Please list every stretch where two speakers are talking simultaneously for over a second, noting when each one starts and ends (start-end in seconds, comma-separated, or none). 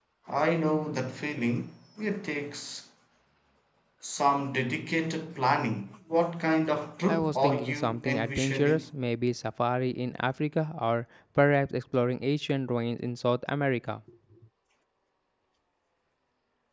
7.1-8.9